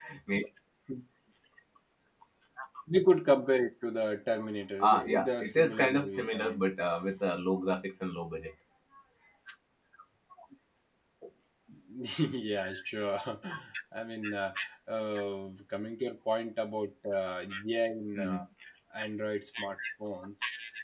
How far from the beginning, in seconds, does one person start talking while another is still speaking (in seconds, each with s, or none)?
4.8 s